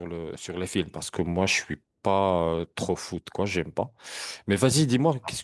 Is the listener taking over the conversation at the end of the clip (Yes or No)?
No